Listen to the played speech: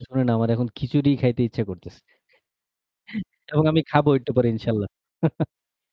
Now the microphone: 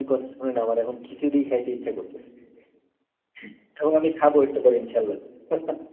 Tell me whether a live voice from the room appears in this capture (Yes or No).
No